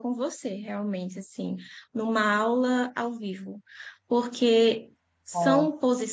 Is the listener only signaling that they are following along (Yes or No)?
Yes